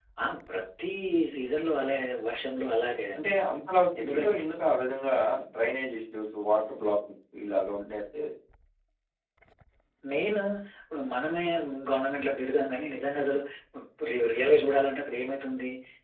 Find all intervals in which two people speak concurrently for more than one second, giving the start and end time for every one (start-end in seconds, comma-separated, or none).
none